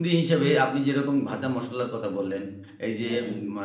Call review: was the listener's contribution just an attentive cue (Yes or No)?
Yes